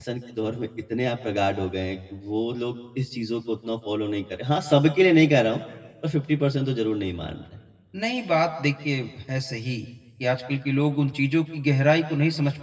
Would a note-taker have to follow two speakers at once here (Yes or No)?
No